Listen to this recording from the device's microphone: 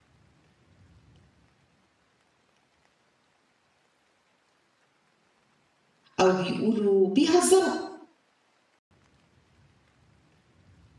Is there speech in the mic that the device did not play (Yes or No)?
Yes